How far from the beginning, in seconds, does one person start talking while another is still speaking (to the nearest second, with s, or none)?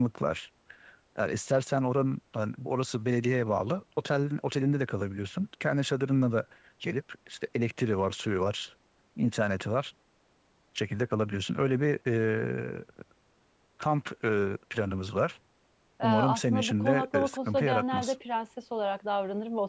16 s